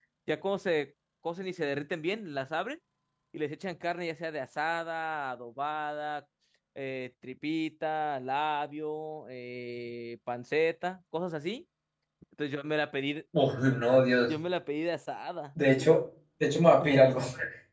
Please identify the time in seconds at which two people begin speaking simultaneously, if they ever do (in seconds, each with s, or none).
none